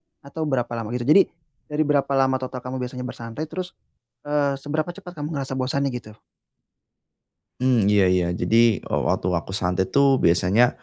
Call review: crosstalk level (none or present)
none